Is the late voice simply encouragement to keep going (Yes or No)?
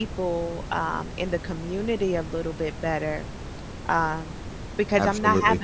Yes